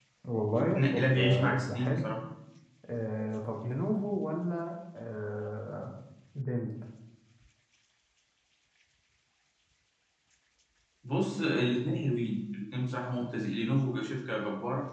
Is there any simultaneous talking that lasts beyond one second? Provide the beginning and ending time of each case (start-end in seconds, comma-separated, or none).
0.5-2.1